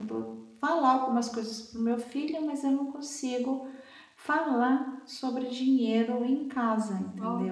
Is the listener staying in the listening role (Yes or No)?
No